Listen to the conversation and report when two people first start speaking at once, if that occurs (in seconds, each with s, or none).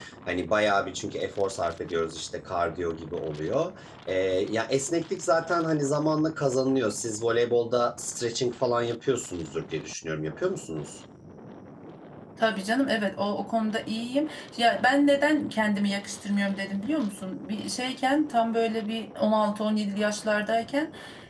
none